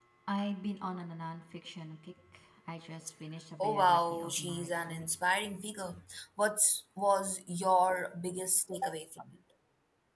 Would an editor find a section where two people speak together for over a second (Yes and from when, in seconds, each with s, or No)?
Yes, from 3.6 s